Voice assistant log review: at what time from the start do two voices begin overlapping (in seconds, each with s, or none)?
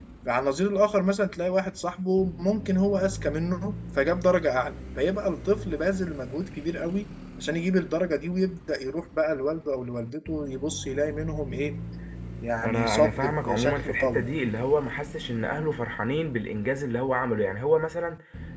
12.6 s